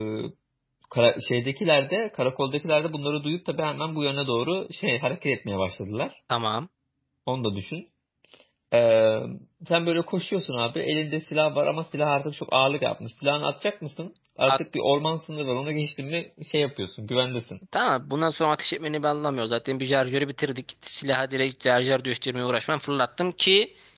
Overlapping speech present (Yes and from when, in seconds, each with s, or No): No